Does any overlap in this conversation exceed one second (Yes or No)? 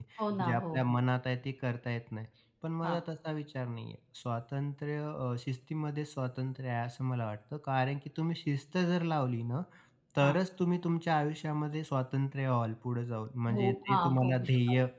Yes